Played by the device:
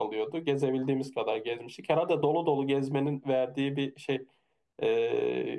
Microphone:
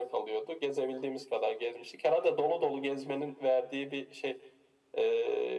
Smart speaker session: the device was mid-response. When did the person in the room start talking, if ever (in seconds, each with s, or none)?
none